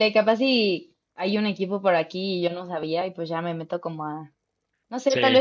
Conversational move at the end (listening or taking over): listening